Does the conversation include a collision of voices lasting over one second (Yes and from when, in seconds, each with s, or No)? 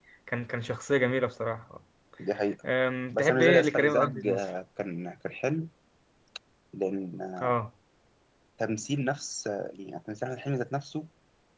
Yes, from 3.1 s